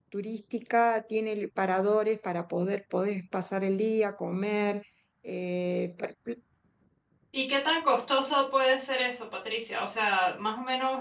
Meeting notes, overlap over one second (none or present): none